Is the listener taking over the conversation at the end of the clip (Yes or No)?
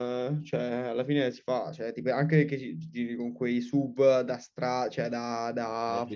Yes